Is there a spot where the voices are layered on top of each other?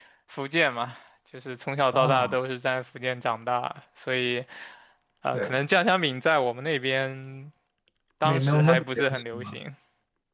Yes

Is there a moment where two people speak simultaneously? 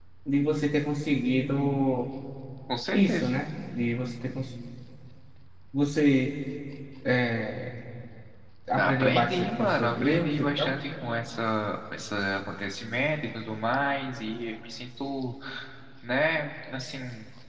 Yes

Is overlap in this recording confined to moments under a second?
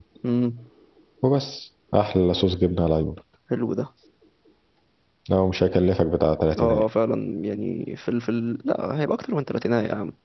Yes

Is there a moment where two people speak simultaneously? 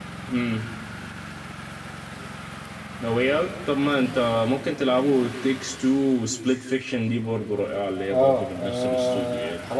Yes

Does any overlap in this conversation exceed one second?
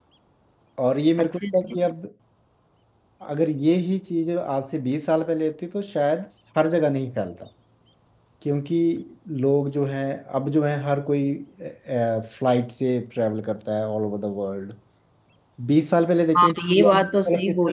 Yes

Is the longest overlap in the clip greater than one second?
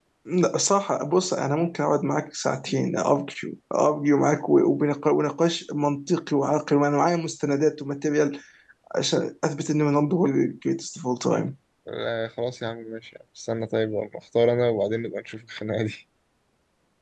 No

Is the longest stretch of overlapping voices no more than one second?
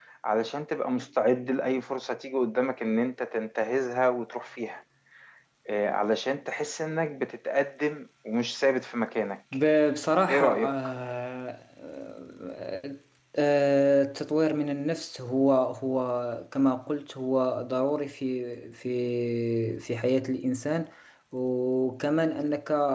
Yes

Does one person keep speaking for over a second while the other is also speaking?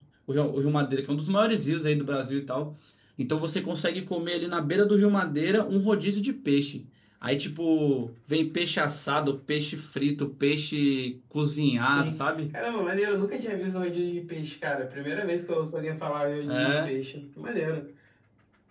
No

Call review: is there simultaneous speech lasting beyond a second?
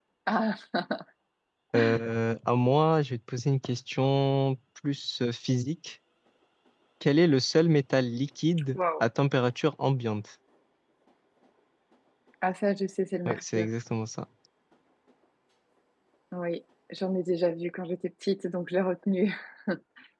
No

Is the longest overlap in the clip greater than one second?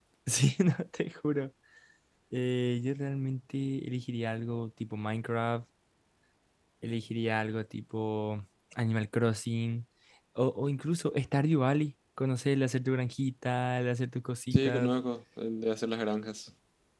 No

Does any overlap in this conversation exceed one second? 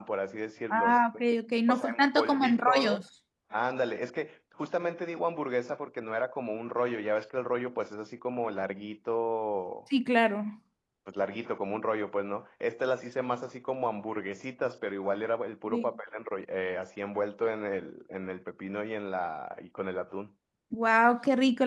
Yes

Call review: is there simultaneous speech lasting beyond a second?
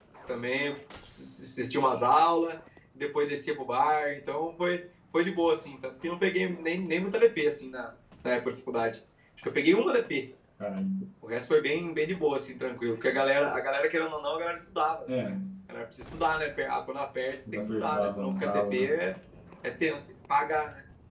Yes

